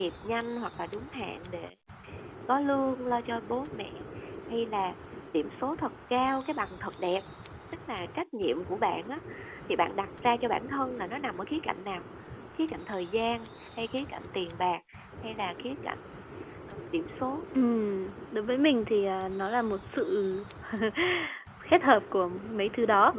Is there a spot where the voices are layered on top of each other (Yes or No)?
No